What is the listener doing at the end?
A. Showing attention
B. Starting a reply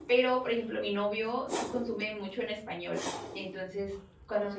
A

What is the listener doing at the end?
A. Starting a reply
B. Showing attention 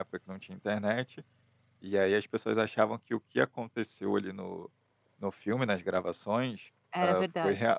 B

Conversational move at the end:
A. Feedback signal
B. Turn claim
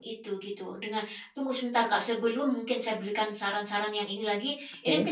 A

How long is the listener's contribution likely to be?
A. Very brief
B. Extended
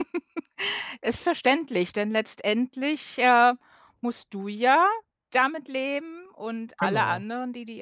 A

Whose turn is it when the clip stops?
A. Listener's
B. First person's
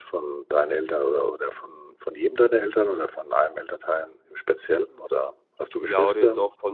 A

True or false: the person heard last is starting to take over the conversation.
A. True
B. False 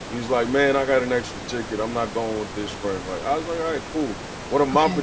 B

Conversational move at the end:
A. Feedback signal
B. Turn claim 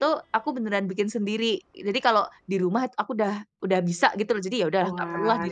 B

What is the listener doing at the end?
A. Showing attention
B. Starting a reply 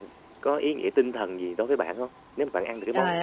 B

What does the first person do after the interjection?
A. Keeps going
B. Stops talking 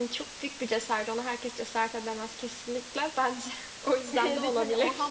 B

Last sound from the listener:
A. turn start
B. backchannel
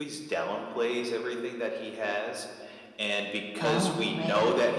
B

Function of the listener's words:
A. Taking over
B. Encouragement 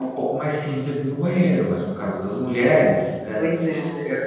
B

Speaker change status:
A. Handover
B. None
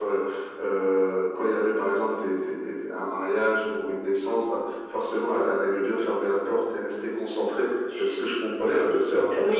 A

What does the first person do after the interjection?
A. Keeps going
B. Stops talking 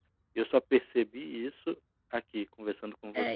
B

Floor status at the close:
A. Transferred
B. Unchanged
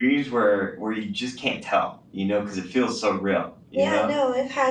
A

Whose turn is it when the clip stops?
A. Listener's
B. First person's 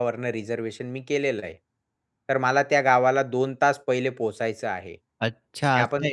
A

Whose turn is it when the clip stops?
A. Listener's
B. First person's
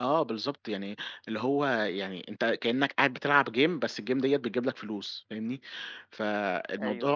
B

